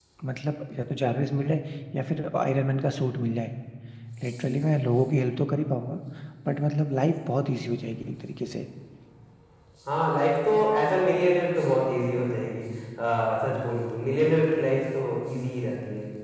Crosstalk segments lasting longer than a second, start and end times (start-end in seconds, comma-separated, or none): none